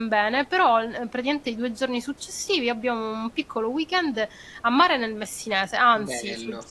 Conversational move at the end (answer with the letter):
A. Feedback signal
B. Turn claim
A